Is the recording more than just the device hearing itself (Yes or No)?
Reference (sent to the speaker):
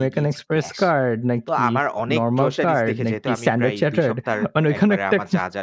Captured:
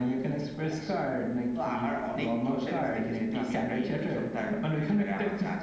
No